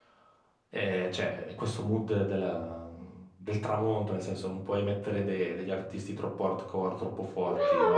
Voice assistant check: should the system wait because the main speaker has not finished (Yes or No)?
No